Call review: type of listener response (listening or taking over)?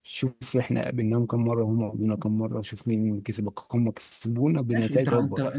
taking over